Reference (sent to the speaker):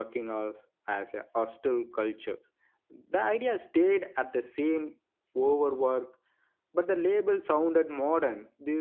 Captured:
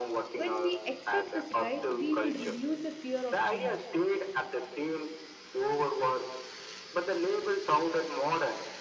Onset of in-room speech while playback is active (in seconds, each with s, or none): 0.3 s